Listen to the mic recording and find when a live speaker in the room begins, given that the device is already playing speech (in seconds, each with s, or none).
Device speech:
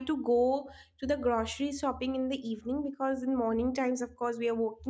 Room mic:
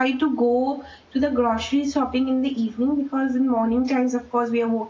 none